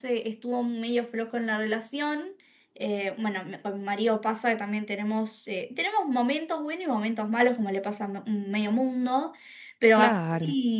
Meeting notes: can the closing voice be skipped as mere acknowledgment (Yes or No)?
Yes